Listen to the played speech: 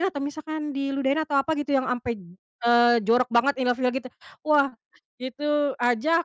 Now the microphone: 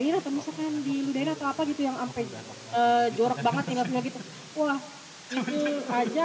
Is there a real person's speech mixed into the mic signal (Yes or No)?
Yes